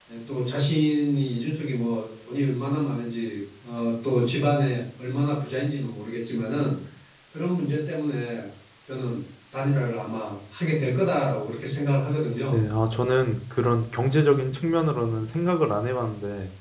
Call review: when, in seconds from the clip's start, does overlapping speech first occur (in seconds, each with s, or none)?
none